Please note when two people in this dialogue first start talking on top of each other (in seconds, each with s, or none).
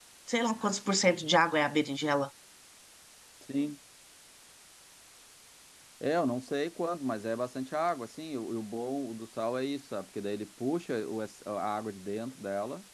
none